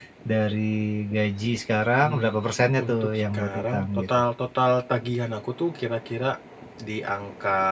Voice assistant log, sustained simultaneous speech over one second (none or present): present